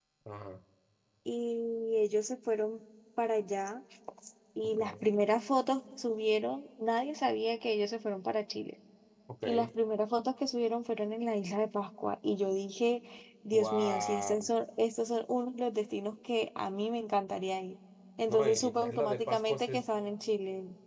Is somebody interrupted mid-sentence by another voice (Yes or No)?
Yes